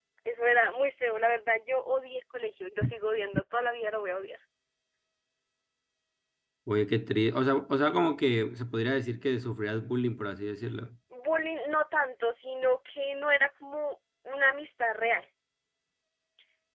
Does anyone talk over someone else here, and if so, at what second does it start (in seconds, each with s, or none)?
none